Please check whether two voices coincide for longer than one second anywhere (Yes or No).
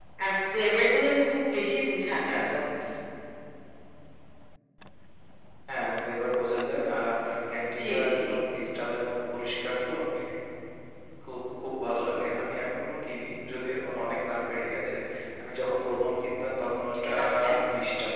No